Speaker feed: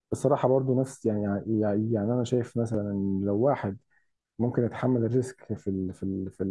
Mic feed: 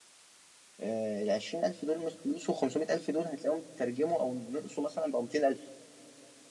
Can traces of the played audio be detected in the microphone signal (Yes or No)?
No